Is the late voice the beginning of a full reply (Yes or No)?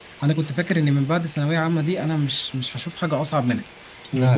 No